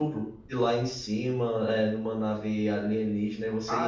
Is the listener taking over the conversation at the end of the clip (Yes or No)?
Yes